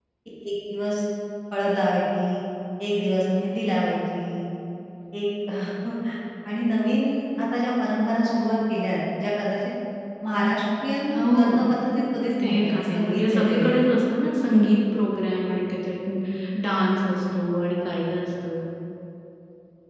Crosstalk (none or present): present